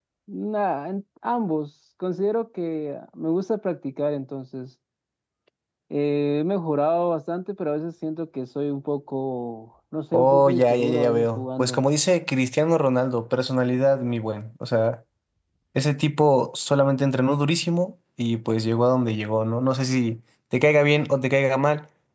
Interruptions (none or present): present